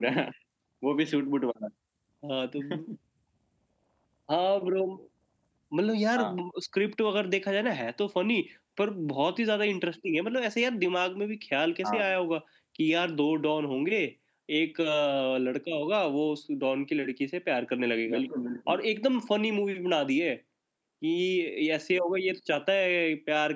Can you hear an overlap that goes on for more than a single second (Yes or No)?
No